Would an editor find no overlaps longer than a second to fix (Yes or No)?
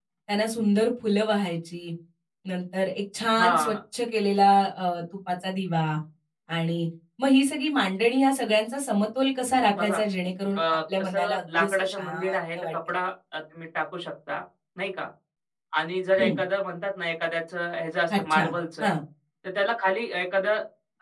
No